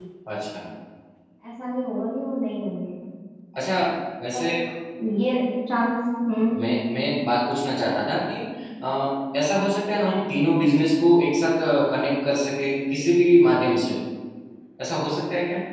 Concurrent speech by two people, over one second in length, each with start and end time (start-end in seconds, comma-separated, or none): none